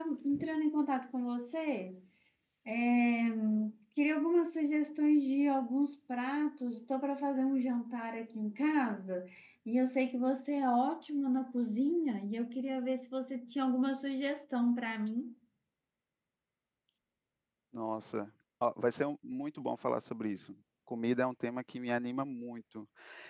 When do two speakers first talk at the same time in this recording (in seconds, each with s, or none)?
none